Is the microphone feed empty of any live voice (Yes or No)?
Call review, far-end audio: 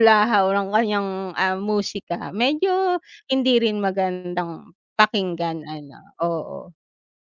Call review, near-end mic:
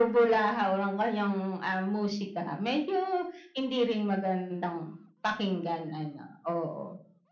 Yes